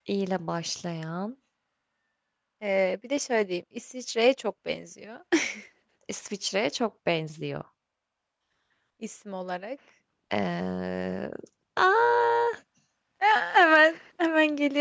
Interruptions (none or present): none